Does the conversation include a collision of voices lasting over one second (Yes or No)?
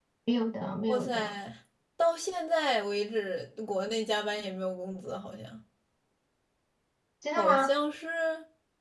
No